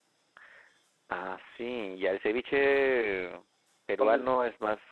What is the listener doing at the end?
listening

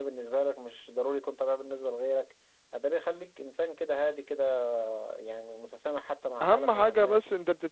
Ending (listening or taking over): taking over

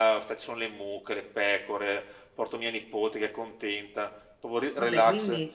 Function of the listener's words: listening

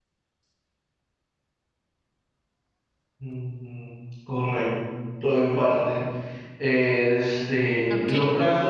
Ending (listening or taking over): listening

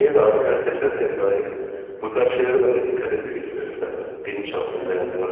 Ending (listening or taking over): listening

